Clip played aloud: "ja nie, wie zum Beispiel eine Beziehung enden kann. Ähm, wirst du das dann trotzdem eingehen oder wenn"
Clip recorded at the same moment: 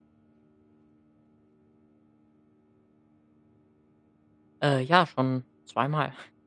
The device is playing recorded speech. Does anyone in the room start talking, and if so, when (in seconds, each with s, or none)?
4.6 s